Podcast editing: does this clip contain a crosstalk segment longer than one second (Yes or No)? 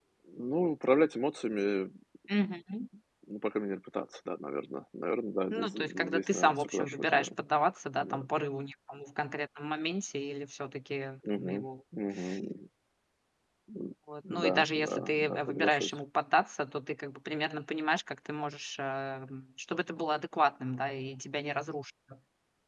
Yes